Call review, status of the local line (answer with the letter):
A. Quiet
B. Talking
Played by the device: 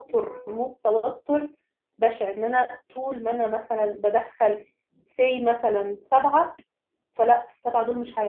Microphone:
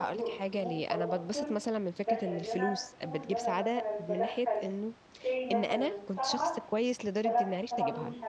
B